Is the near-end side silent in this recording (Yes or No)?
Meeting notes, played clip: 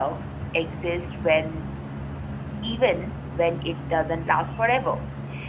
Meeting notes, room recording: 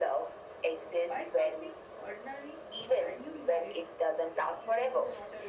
No